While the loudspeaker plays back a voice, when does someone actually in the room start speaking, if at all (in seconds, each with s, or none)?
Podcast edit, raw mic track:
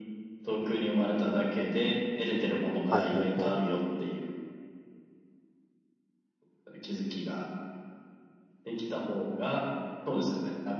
2.9 s